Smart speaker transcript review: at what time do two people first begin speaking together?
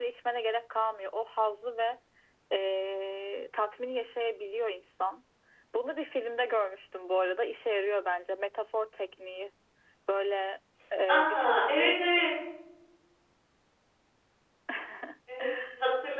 11 s

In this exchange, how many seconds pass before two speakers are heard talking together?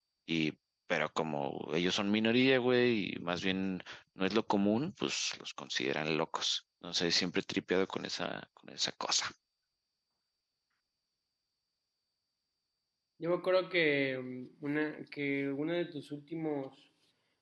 none

